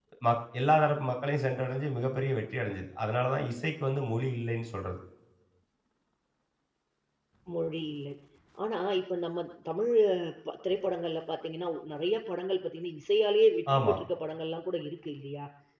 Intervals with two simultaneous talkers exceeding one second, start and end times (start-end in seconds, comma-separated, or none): none